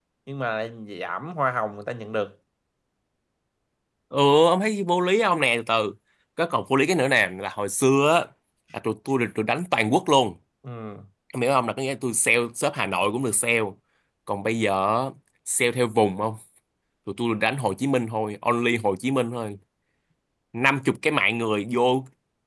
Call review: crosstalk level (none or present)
none